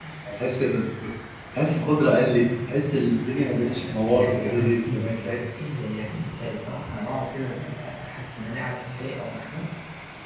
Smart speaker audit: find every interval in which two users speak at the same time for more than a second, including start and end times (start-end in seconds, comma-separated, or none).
3.5-5.0